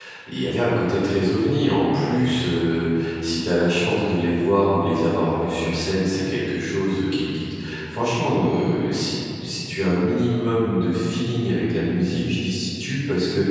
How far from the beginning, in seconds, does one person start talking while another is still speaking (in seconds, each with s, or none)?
none